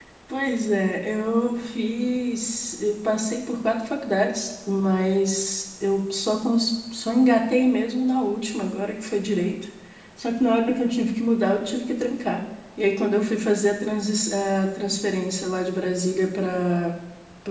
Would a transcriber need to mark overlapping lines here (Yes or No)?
No